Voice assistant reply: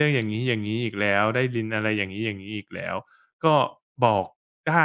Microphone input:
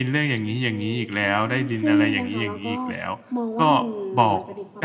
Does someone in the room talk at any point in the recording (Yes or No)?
Yes